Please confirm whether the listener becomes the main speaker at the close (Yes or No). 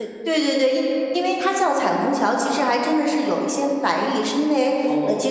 No